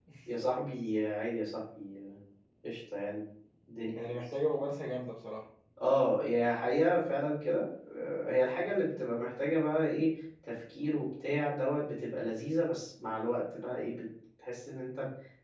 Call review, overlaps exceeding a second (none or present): none